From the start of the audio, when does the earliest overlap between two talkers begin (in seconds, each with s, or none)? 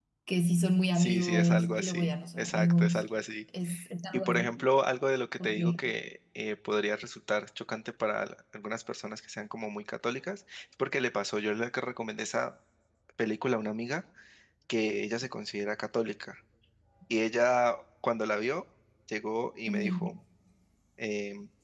0.9 s